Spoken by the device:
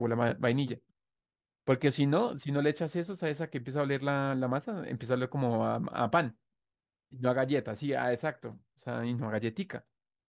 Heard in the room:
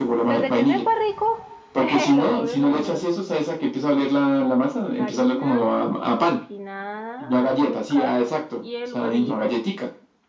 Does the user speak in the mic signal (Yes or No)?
Yes